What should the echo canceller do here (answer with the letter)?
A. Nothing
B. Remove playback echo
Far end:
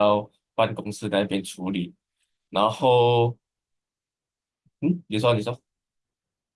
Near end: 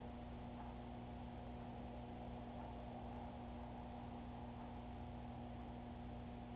A